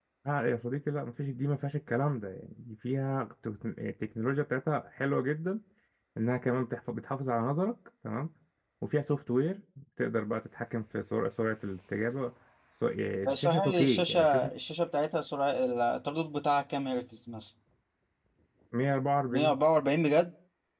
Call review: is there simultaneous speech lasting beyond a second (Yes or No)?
Yes